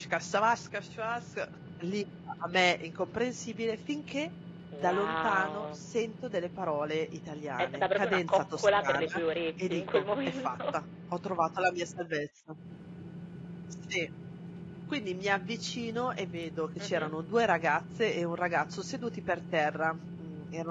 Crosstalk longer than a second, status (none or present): present